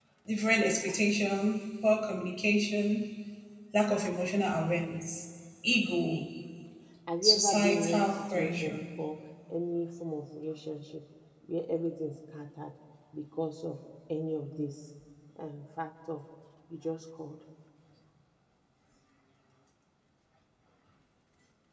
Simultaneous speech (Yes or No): Yes